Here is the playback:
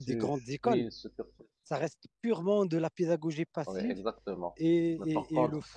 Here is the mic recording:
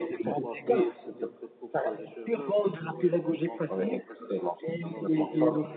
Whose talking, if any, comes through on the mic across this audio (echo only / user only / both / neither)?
both